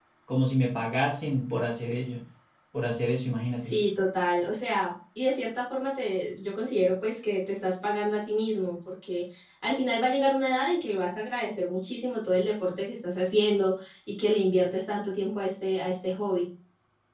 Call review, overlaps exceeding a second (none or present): none